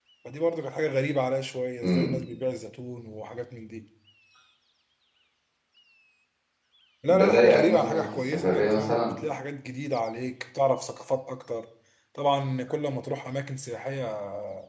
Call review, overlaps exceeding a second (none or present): present